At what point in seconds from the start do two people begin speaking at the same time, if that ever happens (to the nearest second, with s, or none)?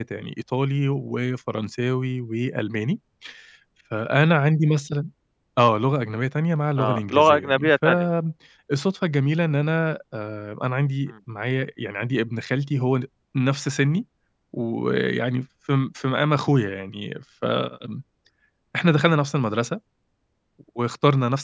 7 s